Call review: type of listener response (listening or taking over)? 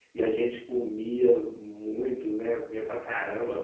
listening